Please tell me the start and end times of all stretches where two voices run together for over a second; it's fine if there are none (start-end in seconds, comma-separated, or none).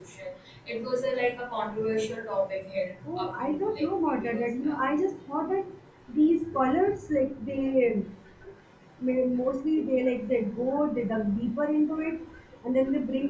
3.2-4.8